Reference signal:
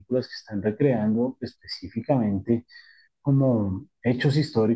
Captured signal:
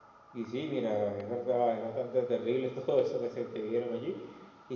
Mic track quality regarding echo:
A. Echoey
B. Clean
B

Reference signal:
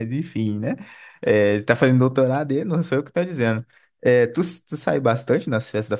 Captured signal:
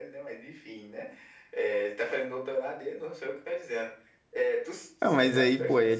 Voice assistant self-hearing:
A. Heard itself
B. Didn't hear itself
A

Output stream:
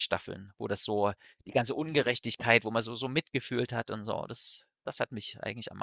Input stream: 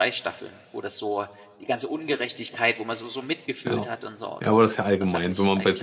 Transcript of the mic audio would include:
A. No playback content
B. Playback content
B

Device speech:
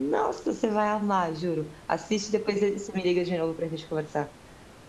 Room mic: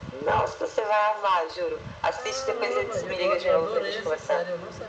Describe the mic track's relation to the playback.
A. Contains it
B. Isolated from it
A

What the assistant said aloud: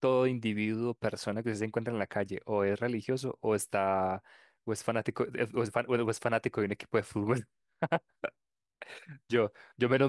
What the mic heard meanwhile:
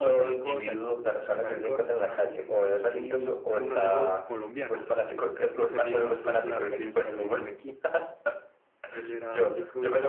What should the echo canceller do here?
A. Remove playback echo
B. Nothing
A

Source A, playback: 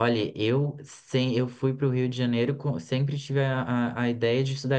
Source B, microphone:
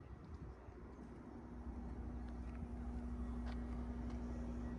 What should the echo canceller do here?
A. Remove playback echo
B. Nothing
B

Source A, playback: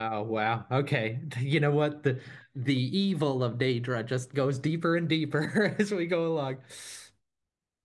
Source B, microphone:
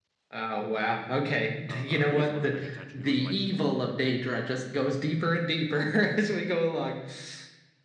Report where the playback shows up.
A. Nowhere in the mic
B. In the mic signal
B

